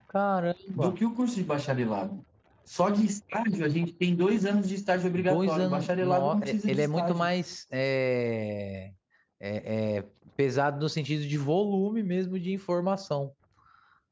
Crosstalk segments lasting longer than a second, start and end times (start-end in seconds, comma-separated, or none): 5.2-7.3